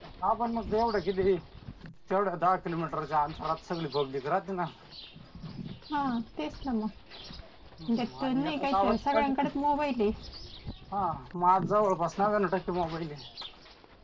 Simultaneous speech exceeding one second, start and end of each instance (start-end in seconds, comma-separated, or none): 8.0-9.3